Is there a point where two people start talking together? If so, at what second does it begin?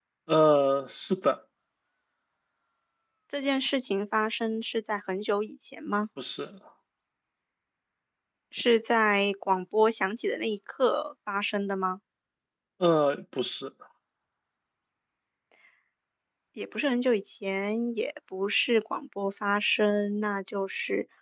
none

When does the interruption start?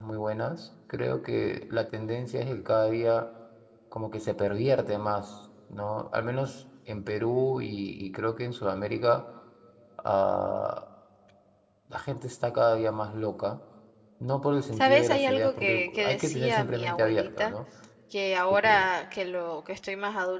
14.7 s

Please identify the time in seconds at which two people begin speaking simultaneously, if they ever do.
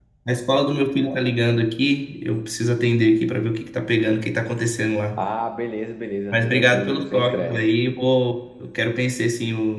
6.3 s

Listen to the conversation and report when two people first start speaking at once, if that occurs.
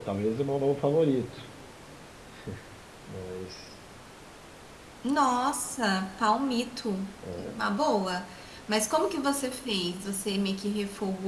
none

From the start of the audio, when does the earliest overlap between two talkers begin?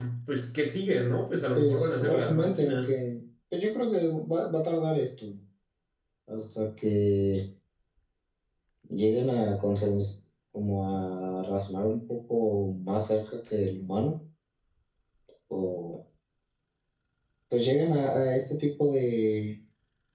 1.6 s

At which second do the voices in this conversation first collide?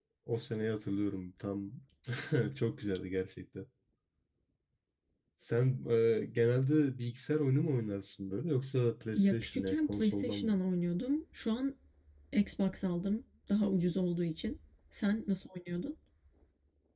9.1 s

